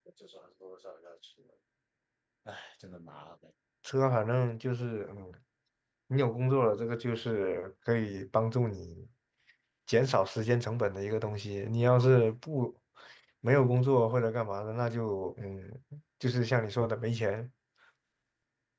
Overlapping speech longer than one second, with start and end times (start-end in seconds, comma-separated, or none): none